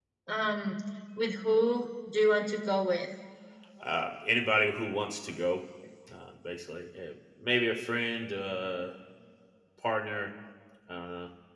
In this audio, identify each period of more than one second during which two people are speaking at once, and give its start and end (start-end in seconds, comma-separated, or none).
none